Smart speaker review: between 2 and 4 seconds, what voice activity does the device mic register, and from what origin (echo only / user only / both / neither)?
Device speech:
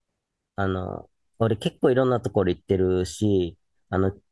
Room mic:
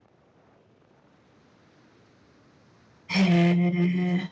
user only